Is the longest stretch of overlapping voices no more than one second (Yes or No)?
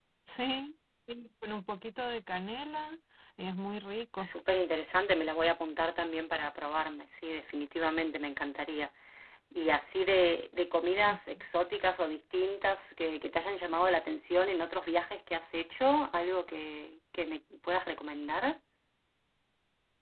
Yes